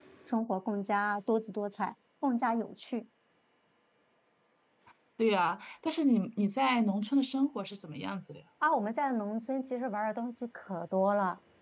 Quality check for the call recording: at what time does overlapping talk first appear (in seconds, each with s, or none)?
none